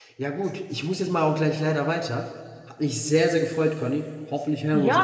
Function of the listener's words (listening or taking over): taking over